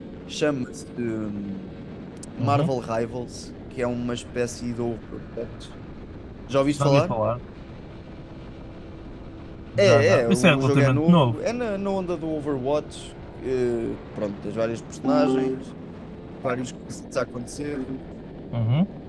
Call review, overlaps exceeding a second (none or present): present